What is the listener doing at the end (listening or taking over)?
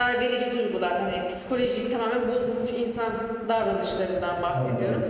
listening